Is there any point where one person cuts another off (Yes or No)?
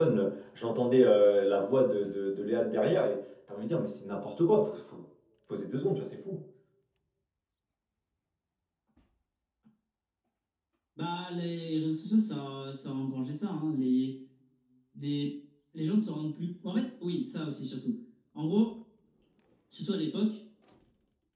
No